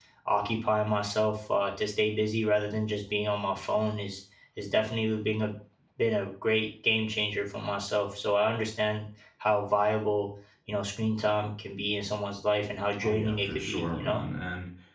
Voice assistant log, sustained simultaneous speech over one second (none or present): present